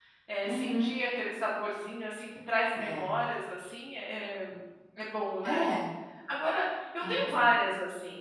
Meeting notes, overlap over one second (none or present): none